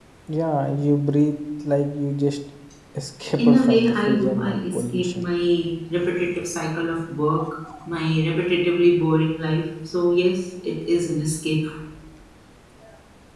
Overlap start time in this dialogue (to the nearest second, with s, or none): 3 s